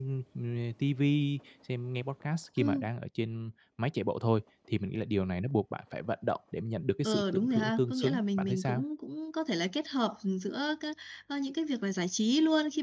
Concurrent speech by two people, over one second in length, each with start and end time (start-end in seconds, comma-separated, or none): 7.0-8.8